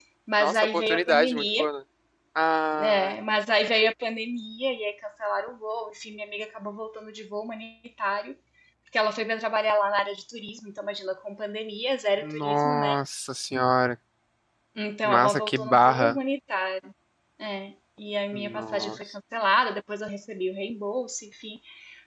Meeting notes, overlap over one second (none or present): present